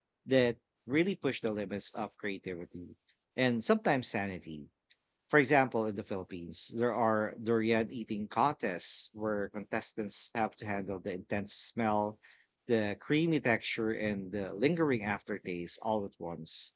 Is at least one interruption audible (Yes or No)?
No